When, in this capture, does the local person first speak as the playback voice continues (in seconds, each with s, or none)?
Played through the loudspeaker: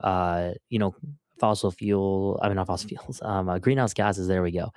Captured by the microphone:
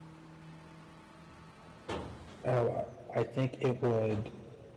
2.4 s